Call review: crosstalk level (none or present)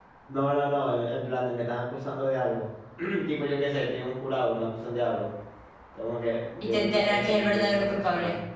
present